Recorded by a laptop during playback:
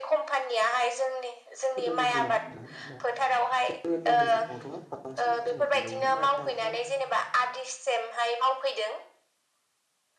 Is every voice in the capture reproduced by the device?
No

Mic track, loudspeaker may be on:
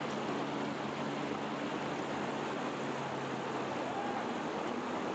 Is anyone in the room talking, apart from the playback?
No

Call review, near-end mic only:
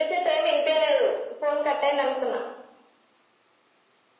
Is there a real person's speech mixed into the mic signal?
No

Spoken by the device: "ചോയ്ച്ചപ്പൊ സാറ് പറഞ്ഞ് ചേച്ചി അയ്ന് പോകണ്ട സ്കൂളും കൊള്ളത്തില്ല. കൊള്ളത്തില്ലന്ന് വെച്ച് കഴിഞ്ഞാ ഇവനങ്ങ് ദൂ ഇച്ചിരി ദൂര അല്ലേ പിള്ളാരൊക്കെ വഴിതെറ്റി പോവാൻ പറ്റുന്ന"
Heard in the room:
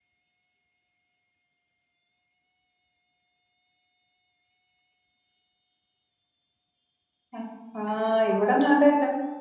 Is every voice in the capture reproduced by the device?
No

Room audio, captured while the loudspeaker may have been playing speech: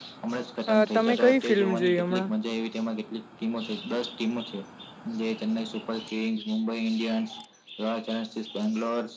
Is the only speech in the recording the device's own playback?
No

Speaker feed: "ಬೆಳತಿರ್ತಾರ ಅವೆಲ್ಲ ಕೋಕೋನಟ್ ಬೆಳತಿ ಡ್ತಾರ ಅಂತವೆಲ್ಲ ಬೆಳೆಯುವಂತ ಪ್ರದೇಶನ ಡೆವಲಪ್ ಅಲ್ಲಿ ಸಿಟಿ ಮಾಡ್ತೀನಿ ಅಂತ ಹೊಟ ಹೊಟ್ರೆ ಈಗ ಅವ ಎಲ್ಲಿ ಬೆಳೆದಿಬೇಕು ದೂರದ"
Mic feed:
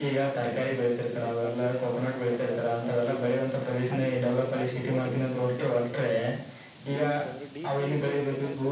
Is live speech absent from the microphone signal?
No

